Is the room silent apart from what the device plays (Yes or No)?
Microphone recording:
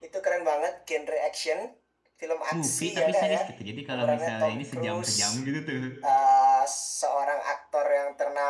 No